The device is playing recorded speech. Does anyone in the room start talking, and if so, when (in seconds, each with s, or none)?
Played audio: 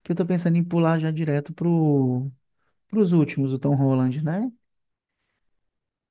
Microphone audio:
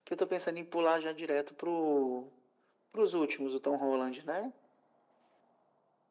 none